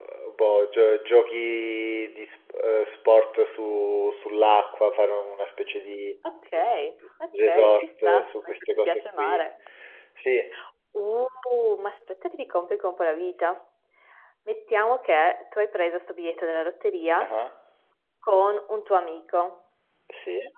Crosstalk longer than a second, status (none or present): present